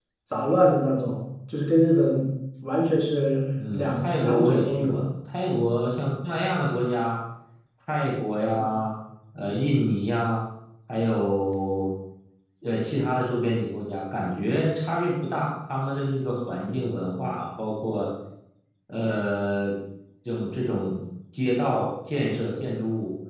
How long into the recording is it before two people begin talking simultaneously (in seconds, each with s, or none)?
3.6 s